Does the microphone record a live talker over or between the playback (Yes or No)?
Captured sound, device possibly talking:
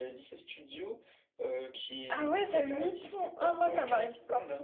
Yes